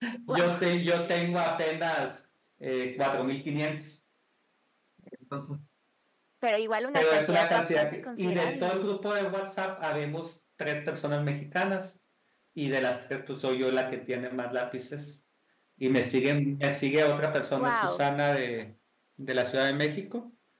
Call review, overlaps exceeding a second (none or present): present